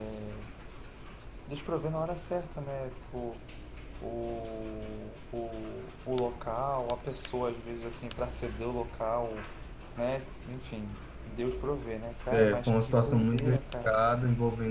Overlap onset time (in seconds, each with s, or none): 12.3 s